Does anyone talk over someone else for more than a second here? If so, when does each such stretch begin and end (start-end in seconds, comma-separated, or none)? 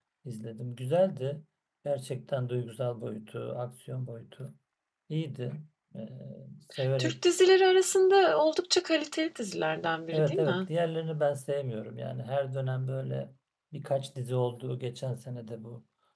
none